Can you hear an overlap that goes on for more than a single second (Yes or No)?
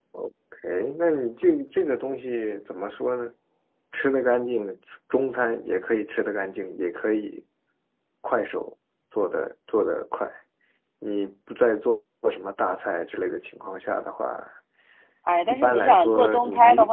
Yes